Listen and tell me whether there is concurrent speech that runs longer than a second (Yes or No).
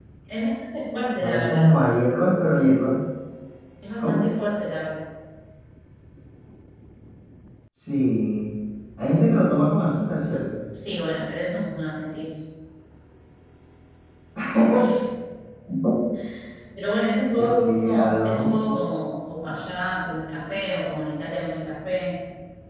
Yes